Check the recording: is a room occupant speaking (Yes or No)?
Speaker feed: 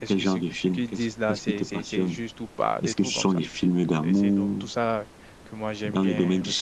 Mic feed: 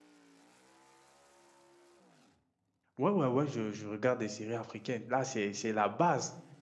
Yes